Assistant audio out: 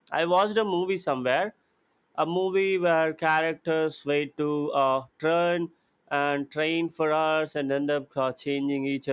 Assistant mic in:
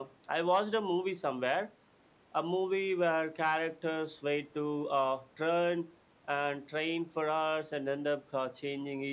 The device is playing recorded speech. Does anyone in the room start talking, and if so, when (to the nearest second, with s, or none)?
none